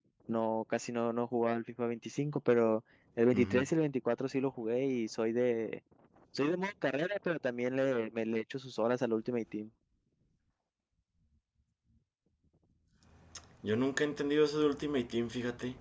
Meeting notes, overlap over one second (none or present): none